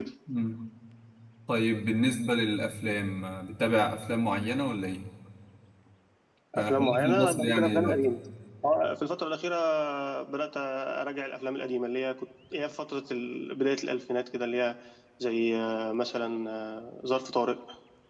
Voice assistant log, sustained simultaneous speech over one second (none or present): present